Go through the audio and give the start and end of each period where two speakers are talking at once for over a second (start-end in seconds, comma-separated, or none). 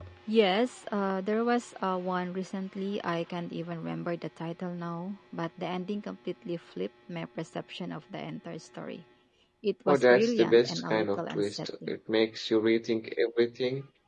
9.9-11.9